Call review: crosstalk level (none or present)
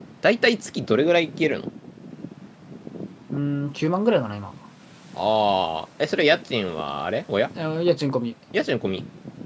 none